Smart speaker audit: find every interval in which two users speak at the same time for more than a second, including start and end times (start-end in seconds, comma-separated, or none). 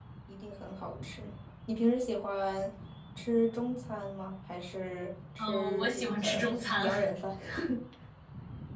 5.4-7.1